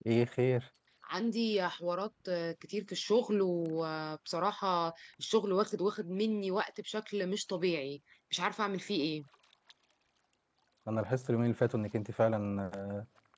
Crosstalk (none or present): none